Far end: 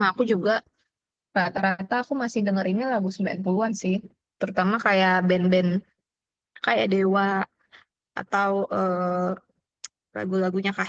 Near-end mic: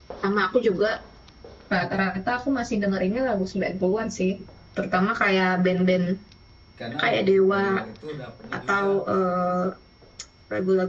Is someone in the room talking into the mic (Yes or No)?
Yes